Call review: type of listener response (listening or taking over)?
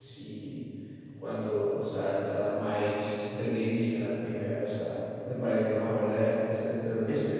taking over